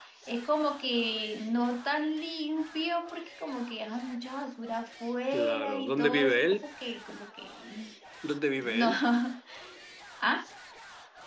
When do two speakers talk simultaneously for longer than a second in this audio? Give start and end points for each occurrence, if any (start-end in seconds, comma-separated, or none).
5.3-6.6